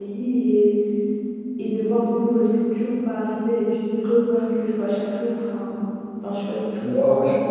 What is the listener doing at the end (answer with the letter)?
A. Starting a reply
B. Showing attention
A